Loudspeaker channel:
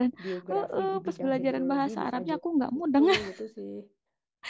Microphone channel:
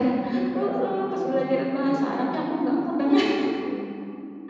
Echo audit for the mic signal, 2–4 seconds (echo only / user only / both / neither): echo only